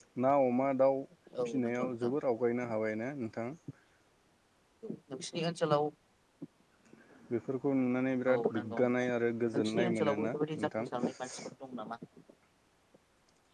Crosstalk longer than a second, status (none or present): present